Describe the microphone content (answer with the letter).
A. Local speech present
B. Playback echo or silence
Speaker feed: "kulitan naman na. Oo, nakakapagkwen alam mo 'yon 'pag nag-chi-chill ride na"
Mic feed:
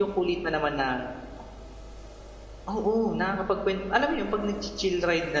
B